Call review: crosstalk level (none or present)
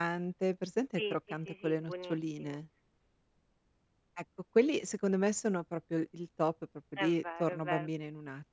present